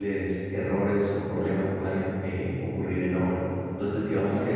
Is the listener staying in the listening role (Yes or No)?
Yes